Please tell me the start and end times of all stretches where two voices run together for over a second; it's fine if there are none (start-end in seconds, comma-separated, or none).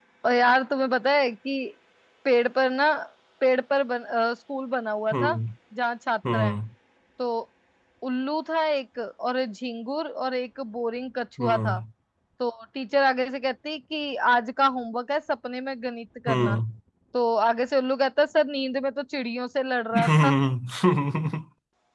none